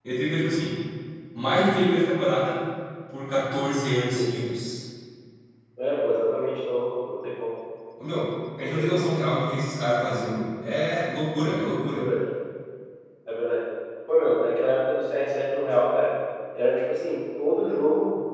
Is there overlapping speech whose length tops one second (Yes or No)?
No